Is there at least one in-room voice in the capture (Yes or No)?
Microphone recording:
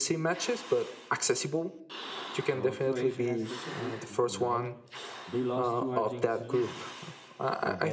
Yes